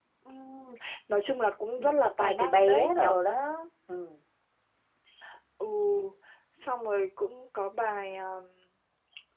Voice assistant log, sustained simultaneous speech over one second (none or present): present